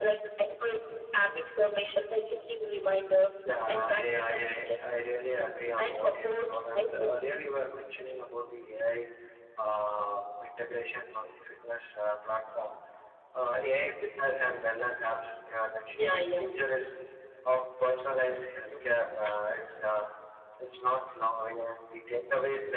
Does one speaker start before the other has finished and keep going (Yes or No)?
Yes